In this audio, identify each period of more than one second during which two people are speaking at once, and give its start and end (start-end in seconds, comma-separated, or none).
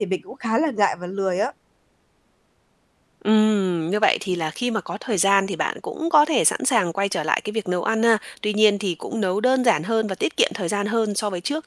none